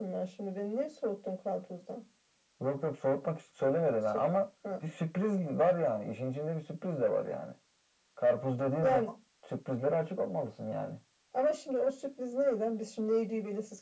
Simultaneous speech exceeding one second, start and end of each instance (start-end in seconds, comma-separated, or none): none